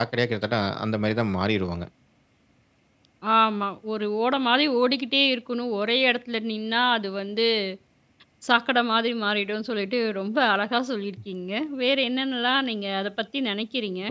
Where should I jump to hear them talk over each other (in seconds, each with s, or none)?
none